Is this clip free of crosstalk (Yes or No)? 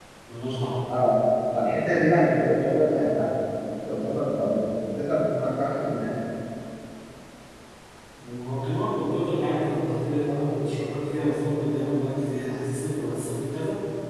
Yes